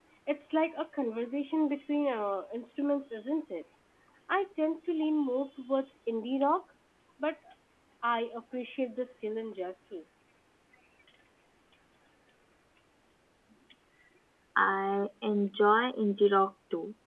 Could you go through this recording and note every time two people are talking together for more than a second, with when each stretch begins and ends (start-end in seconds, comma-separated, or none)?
none